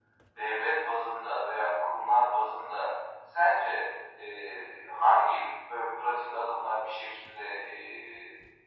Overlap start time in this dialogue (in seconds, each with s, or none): none